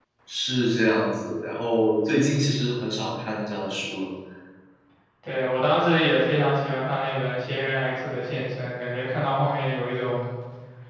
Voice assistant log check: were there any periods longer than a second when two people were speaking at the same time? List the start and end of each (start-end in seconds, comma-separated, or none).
none